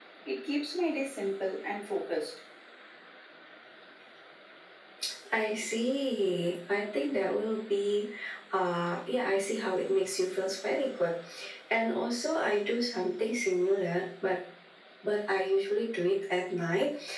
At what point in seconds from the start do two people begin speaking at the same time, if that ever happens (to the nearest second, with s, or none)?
none